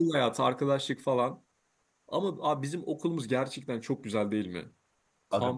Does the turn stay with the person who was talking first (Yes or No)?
Yes